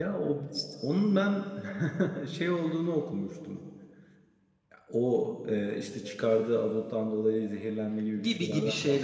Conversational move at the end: taking over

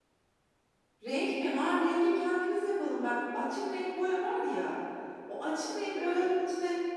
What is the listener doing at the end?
listening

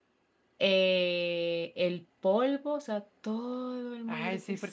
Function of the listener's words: taking over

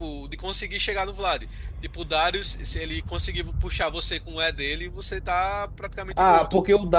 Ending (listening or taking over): taking over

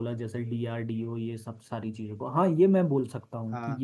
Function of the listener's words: listening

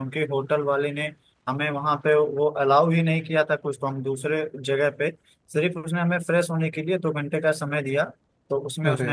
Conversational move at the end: listening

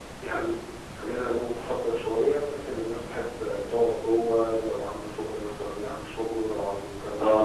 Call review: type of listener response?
listening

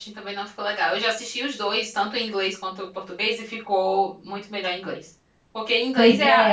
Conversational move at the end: listening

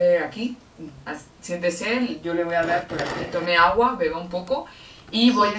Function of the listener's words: listening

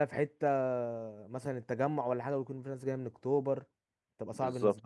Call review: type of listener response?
taking over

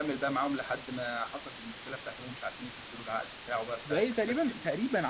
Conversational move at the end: taking over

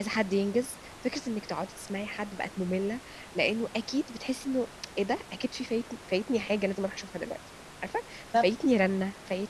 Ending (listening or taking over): listening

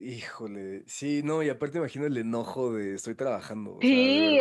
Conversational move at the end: taking over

